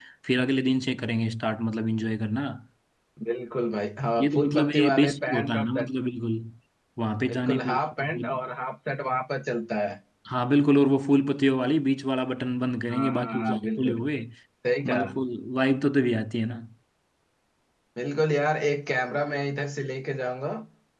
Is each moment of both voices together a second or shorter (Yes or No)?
No